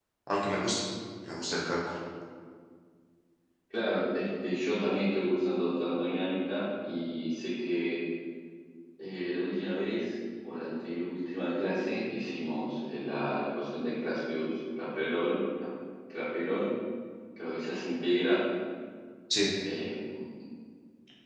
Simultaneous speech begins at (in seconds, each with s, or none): none